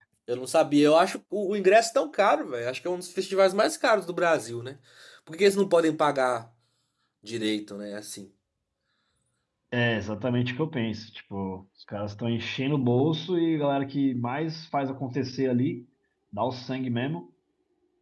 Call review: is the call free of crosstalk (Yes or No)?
Yes